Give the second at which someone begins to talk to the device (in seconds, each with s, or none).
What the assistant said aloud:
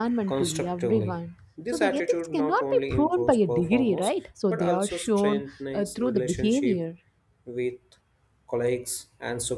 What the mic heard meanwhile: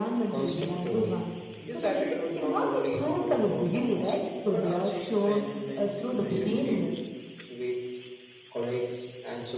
none